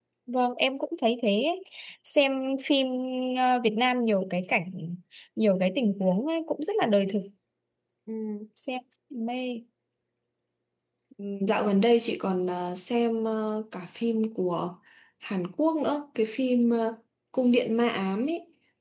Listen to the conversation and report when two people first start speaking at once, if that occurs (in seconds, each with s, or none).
none